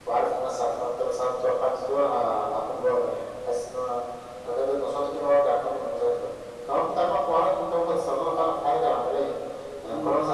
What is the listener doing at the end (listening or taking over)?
listening